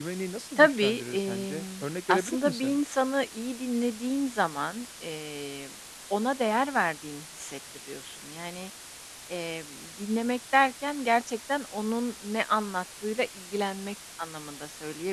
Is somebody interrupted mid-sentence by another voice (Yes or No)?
Yes